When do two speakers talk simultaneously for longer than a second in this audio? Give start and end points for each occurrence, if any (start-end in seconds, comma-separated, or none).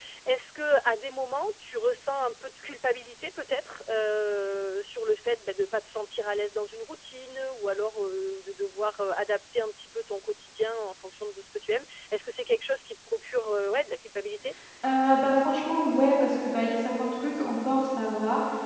none